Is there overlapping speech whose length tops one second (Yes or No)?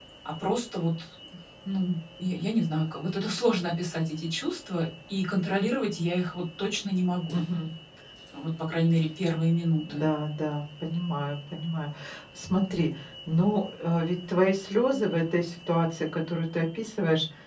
No